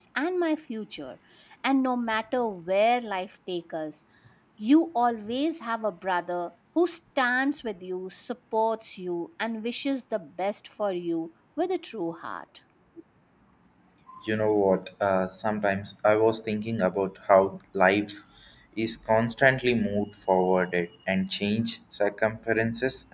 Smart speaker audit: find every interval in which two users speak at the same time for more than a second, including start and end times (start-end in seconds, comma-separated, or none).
none